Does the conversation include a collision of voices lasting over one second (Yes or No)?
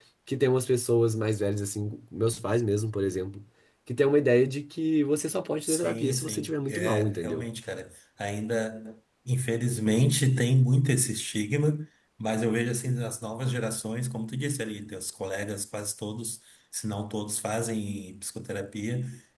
Yes